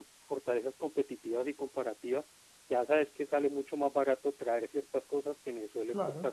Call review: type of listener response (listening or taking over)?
listening